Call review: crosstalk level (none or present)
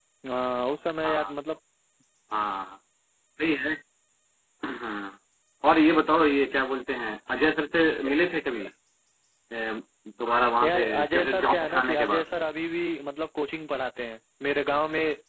present